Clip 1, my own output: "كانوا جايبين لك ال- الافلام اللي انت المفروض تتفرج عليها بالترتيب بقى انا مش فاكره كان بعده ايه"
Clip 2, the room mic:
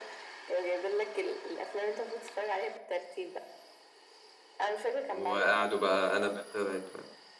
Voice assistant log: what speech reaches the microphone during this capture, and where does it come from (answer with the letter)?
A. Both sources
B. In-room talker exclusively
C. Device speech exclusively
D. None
A